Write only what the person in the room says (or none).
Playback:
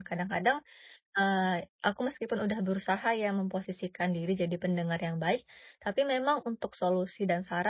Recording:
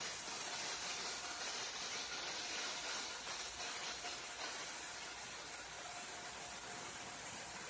none